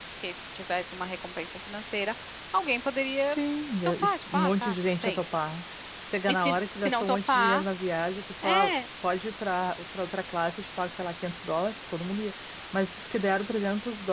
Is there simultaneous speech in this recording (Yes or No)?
Yes